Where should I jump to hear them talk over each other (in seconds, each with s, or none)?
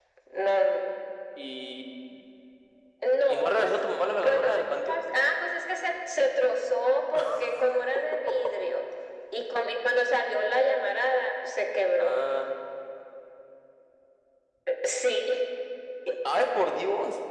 3.3 s